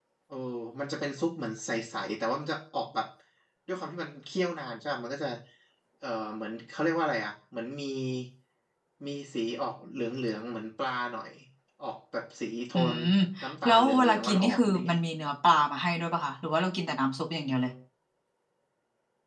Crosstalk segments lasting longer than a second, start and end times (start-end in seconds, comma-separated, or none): 13.6-15.0